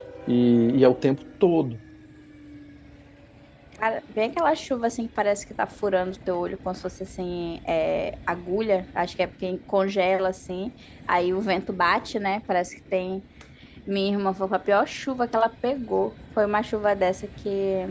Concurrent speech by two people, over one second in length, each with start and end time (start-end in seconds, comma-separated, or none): none